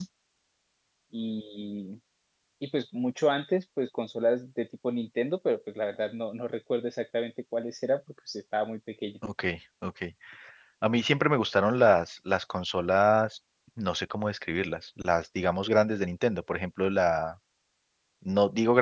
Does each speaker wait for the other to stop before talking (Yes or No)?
Yes